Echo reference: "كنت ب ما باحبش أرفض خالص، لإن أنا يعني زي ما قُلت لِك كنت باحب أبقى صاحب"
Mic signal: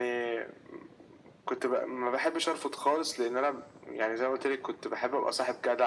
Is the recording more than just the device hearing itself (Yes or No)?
No